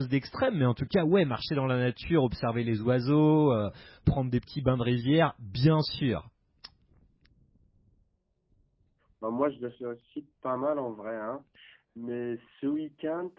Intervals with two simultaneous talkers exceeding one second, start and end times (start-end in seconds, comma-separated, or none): none